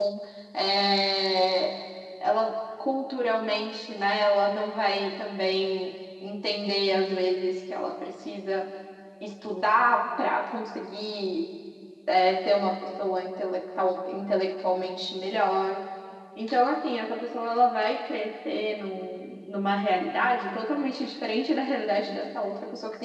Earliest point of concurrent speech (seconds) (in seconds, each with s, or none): none